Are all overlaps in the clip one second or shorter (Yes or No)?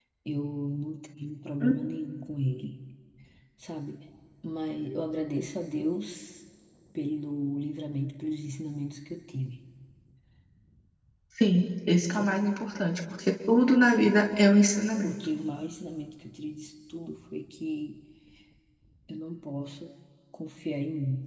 Yes